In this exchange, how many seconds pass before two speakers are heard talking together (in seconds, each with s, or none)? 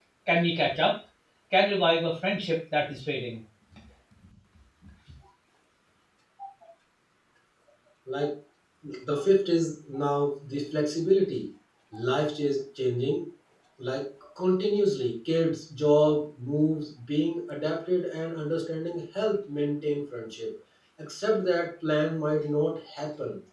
none